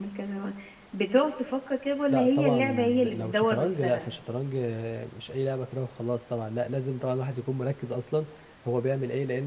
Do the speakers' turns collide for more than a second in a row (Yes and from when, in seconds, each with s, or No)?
Yes, from 2.1 s